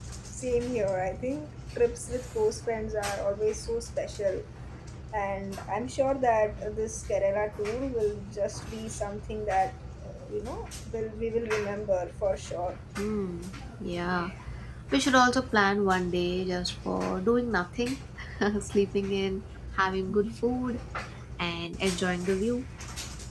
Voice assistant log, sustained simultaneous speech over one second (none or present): none